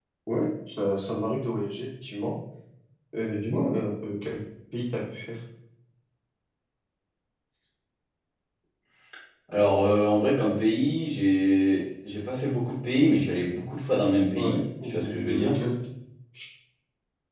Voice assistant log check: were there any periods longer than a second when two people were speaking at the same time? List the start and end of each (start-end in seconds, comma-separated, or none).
14.4-15.6